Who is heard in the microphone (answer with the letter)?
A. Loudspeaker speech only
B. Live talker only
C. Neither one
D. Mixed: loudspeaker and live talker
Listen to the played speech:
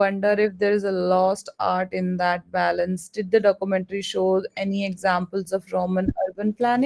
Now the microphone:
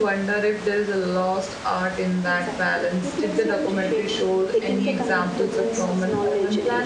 D